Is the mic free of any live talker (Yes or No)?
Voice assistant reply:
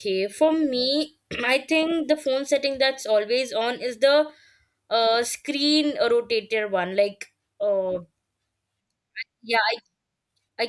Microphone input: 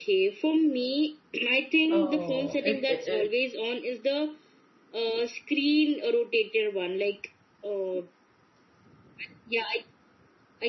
No